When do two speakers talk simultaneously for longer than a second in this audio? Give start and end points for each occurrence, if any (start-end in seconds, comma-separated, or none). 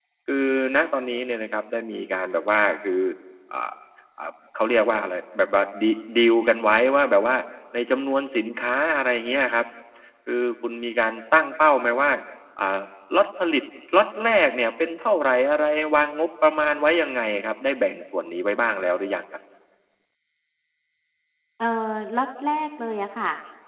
none